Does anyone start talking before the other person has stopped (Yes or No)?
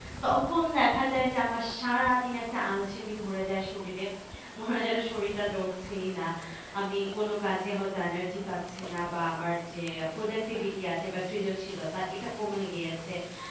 No